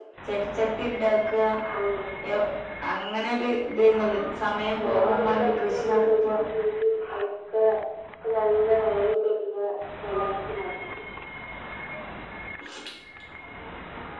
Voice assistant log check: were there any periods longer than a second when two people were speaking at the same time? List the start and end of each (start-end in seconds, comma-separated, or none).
4.8-6.3